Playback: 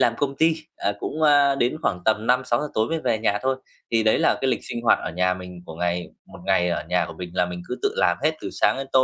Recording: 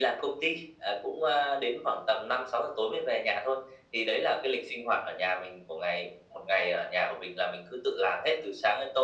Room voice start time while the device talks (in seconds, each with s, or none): none